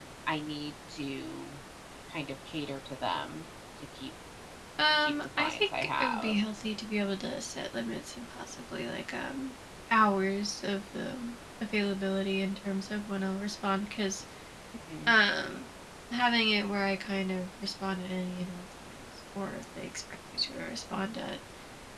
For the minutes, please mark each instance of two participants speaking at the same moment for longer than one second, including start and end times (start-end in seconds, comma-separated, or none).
4.9-6.4